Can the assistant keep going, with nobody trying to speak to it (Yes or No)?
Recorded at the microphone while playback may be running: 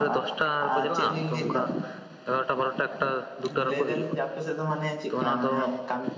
No